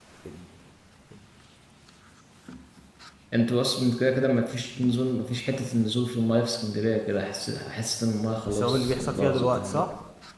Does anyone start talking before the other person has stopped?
Yes, from 8.5 s

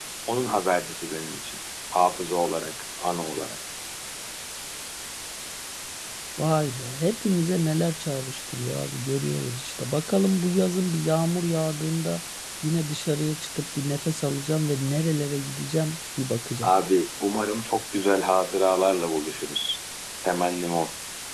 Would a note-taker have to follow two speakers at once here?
No

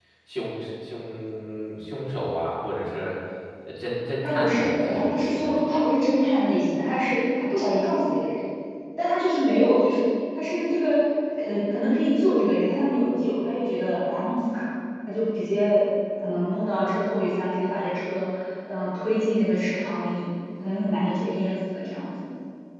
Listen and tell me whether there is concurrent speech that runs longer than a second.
Yes, from 4.2 s

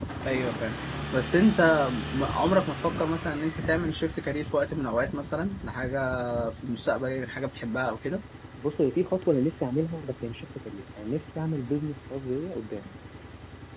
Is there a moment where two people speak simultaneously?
No

